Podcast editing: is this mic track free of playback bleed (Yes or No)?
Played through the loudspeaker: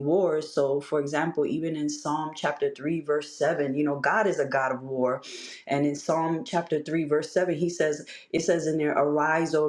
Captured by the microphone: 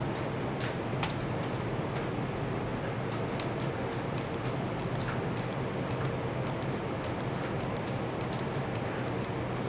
Yes